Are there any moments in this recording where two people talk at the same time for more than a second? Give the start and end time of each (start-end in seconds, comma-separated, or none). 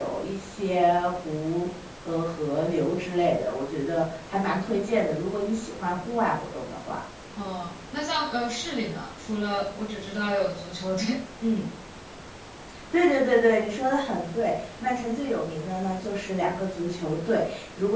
none